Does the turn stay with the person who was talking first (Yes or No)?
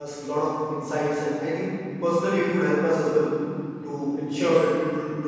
Yes